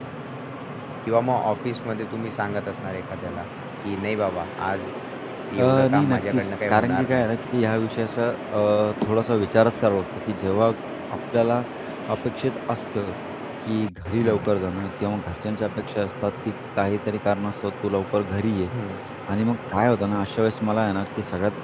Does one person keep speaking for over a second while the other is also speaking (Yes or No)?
Yes